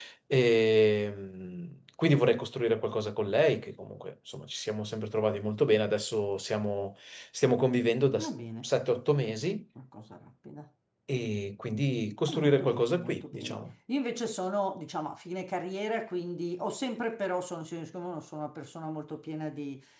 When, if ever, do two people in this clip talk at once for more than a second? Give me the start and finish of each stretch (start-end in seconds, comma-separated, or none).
12.3-13.6